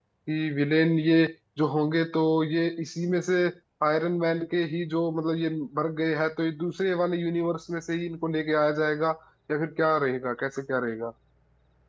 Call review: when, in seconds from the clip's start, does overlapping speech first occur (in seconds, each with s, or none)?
none